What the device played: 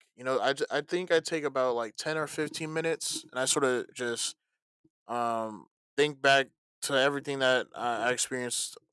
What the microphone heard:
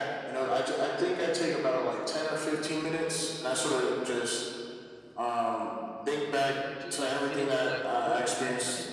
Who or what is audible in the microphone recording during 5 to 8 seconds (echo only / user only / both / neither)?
both